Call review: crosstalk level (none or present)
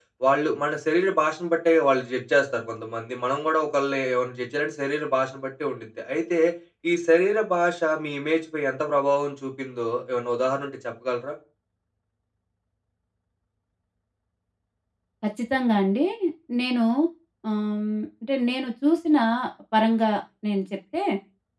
none